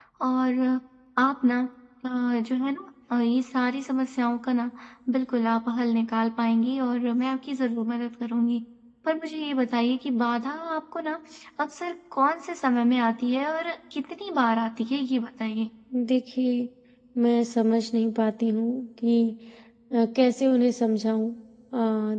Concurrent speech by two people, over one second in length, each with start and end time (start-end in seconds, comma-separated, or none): none